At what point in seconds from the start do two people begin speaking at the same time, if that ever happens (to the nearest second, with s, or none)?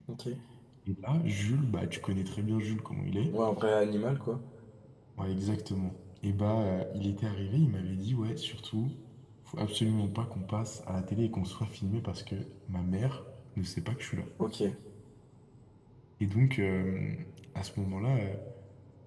none